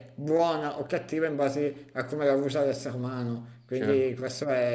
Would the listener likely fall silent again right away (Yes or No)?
Yes